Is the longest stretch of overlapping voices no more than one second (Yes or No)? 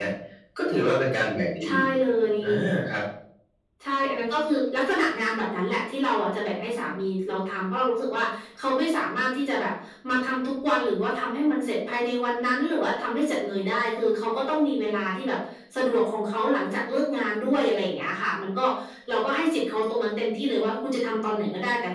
Yes